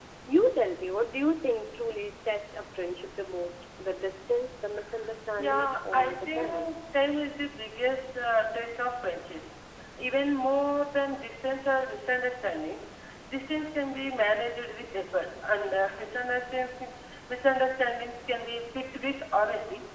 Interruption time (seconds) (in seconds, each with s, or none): 5.4 s